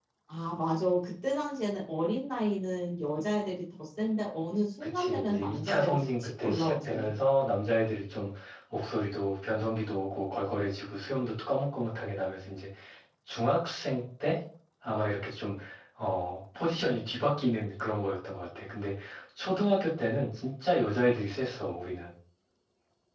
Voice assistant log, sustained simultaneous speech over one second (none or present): present